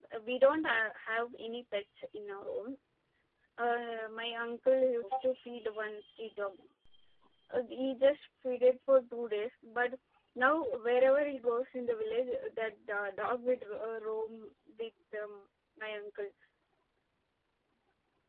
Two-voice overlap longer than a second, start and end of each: none

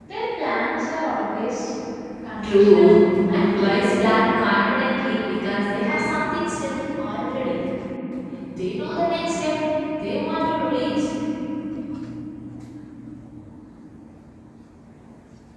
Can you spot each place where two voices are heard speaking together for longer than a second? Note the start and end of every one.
2.4-4.2

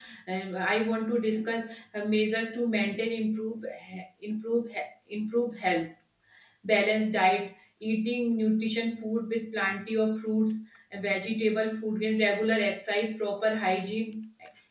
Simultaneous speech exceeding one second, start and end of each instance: none

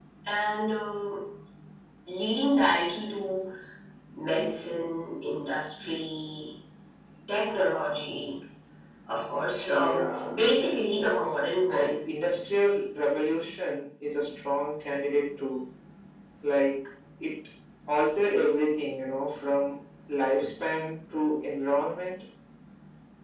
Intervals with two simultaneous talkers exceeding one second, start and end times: 9.7-11.0

